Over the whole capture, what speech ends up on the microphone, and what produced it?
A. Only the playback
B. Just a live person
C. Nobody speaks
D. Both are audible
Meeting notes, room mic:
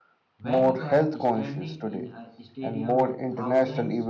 D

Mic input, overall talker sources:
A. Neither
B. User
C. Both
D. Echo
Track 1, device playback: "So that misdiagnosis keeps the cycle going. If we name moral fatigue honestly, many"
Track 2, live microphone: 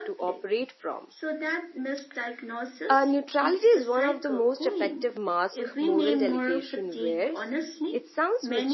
C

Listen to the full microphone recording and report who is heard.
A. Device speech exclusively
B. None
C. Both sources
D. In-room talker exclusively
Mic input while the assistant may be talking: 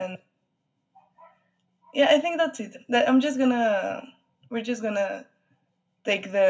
A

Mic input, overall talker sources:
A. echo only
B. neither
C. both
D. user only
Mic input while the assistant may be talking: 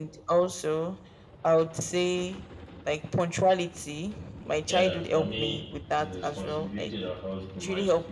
C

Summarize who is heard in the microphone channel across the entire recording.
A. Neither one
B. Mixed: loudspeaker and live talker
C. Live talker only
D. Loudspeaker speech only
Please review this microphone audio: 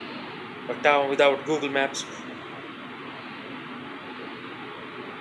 C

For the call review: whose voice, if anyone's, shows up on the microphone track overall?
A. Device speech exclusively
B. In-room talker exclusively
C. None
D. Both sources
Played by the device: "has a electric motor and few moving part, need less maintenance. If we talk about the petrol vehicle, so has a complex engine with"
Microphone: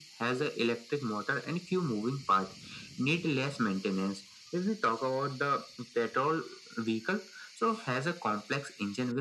A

